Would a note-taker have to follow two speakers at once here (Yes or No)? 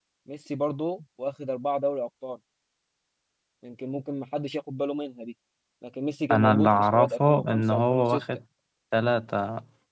Yes